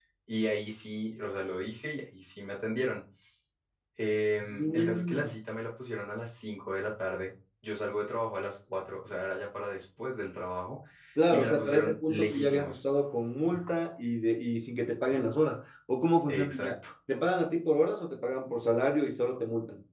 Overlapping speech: Yes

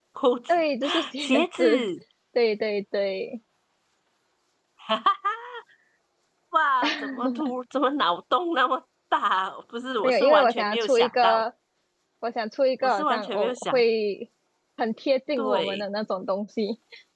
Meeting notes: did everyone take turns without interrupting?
No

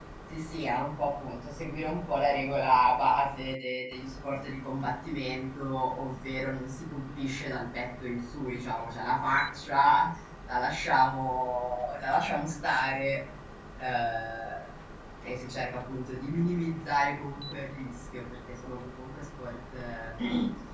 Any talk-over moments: No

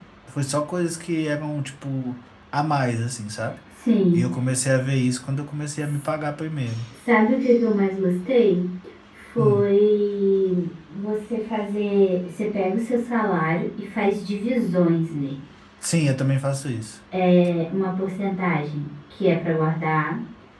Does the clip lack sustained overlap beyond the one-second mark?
Yes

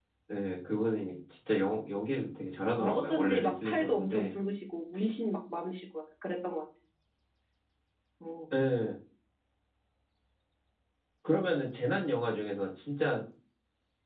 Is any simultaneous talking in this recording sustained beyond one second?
Yes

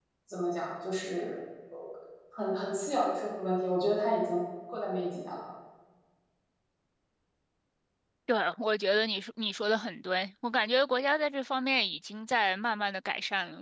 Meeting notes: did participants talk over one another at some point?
No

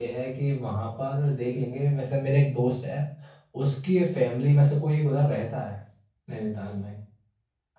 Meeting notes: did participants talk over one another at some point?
No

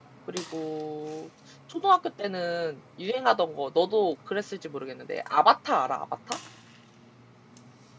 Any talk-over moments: No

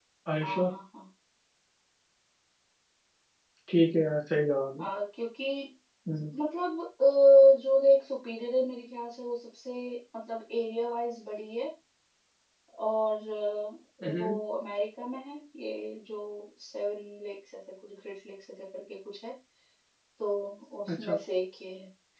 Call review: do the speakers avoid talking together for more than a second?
Yes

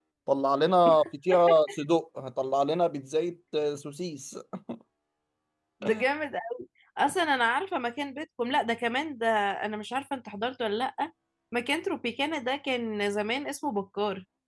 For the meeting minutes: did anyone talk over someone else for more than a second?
No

